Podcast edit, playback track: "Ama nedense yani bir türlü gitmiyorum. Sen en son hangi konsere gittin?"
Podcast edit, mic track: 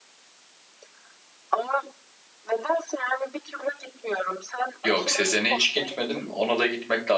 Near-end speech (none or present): present